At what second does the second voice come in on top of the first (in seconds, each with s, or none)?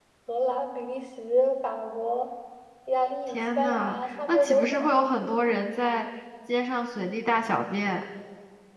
3.3 s